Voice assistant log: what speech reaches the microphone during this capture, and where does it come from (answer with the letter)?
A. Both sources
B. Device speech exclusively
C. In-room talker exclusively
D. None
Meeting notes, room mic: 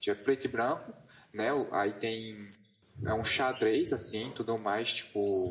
C